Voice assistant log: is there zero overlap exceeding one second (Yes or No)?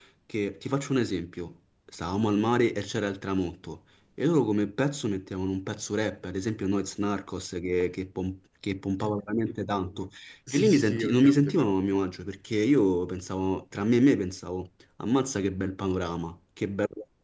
No